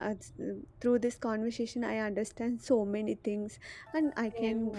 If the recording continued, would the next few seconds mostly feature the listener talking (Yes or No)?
No